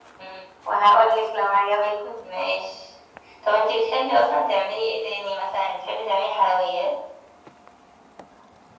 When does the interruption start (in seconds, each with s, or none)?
none